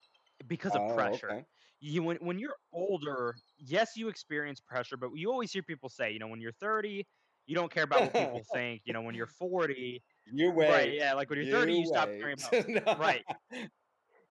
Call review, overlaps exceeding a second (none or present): present